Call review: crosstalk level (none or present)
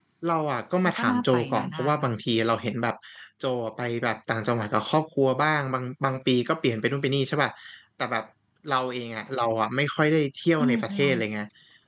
present